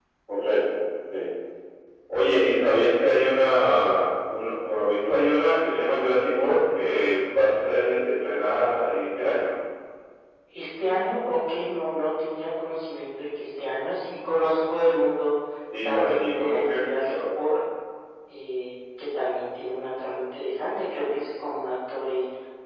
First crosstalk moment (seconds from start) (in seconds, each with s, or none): 15.8 s